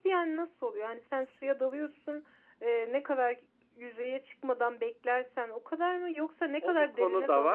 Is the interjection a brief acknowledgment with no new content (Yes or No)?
No